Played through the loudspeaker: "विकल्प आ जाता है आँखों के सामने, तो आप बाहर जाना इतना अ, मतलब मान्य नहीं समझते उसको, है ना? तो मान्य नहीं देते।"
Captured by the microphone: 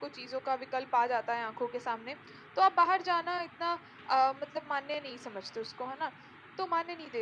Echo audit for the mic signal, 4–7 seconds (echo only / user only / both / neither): echo only